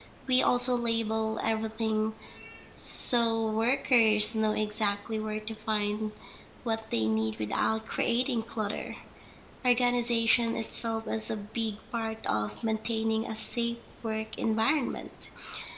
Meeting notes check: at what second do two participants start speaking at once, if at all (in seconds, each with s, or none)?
none